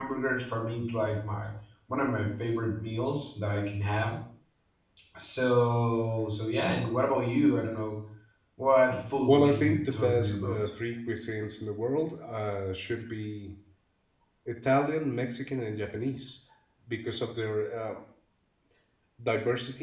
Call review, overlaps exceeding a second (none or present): present